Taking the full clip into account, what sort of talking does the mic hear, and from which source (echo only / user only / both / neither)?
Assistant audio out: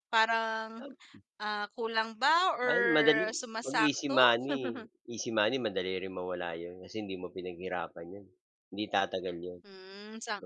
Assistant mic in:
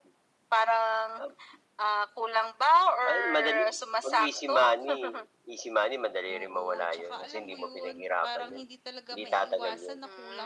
both